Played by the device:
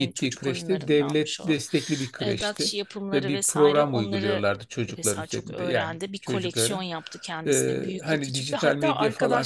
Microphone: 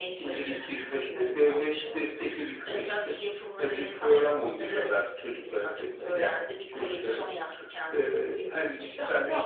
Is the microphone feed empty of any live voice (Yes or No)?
Yes